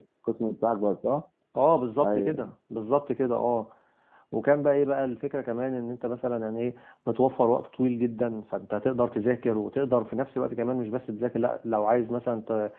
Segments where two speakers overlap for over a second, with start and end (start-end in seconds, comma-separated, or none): none